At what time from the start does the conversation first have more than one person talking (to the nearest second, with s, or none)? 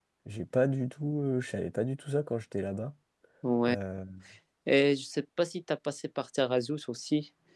none